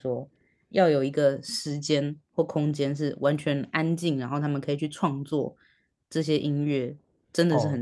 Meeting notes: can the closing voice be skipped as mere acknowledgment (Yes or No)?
No